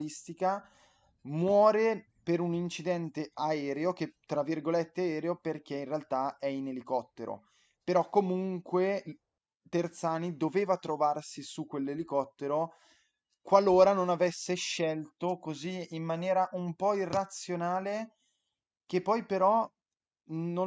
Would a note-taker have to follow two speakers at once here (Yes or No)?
No